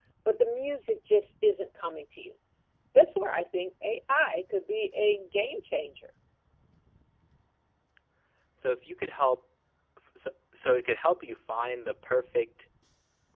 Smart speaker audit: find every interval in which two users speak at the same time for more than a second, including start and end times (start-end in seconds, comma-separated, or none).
none